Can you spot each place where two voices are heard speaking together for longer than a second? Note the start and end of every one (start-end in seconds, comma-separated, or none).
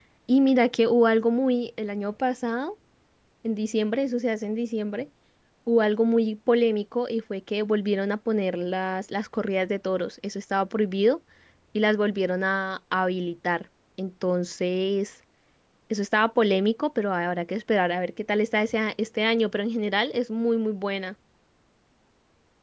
none